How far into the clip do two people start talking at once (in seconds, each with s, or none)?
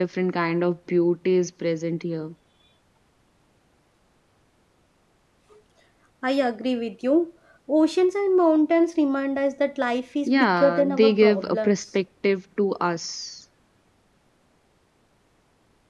10.3 s